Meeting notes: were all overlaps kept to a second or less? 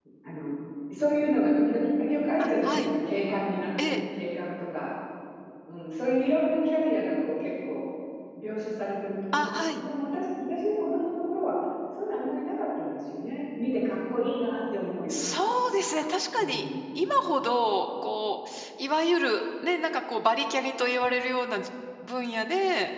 Yes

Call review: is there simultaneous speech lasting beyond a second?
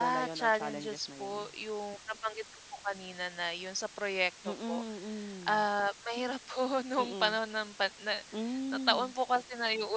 Yes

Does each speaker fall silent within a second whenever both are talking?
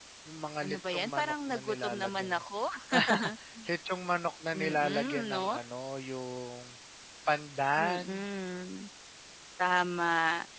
No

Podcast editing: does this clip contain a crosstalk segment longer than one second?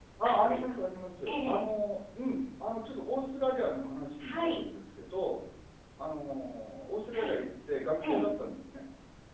No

